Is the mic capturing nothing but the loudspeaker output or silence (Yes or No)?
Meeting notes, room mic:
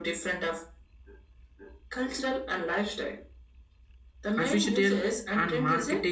No